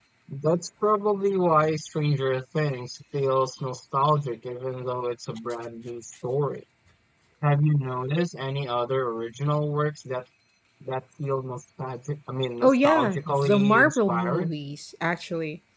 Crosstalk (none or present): present